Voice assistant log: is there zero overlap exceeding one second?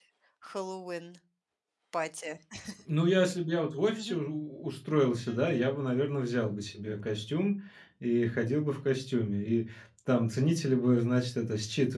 Yes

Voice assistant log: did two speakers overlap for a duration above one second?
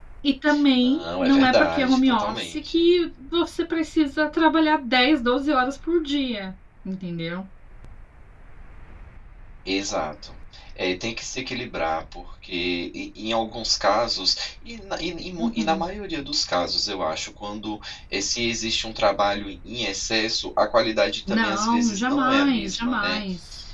Yes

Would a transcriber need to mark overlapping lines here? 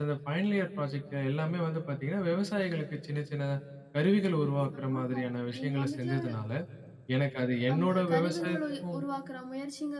Yes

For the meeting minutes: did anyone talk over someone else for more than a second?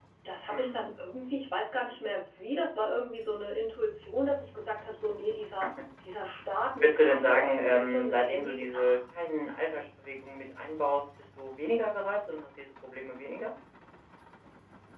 Yes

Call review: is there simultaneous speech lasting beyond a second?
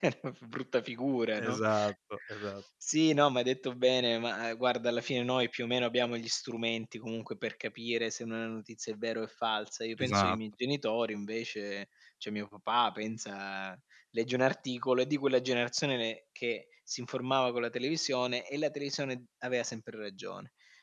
No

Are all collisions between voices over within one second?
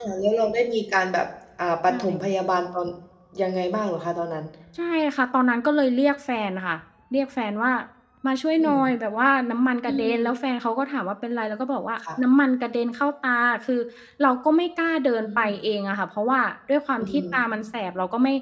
Yes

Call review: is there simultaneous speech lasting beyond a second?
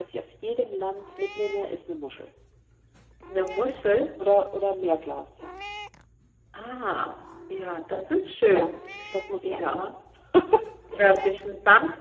No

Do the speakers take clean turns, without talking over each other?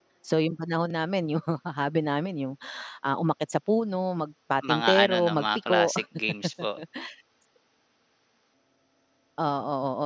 No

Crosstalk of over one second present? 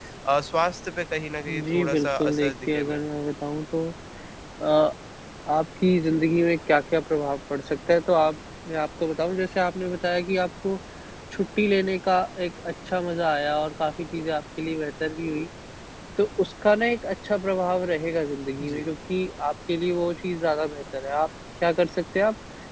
Yes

